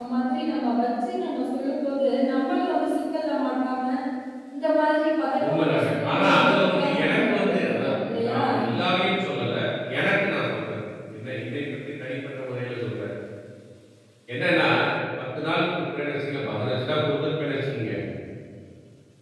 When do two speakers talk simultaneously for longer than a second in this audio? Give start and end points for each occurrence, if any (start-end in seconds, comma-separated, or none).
5.4-8.4